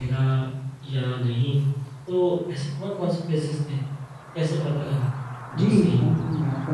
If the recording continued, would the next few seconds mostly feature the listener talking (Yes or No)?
Yes